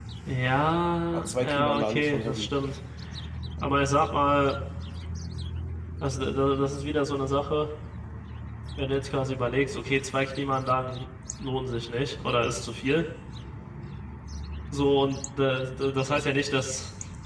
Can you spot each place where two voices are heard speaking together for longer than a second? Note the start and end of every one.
1.1-2.5

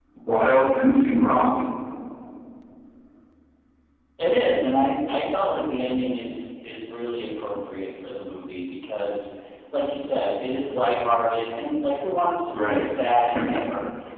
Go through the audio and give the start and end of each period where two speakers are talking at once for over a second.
none

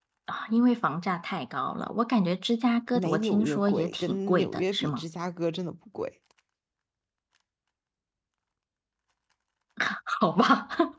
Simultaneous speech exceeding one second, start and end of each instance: 3.0-5.0

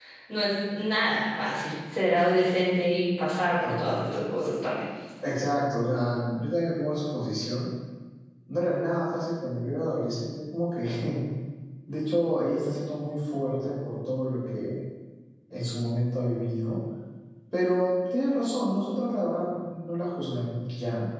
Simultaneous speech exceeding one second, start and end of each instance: none

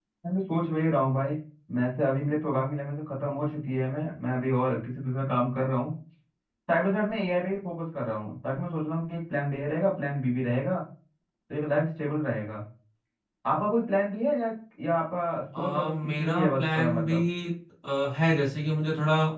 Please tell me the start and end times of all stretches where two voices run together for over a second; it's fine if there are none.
15.6-17.2

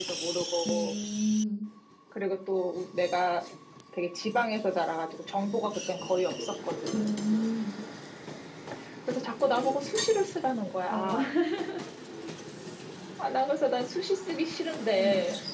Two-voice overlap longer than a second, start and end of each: none

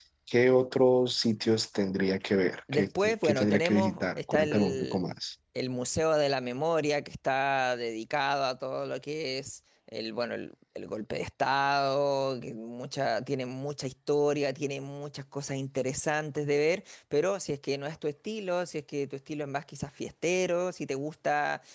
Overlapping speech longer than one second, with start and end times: 2.7-5.0

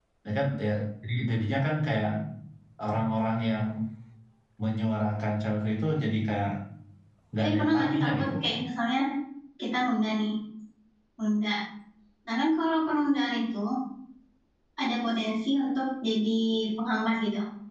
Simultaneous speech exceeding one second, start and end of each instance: 7.4-8.7

